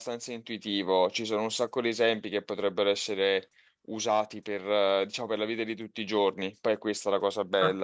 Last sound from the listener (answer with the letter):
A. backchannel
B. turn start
B